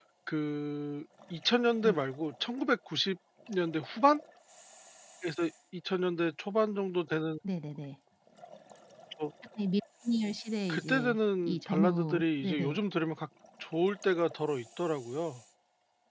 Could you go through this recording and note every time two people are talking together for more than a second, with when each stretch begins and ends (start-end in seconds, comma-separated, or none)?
10.7-12.8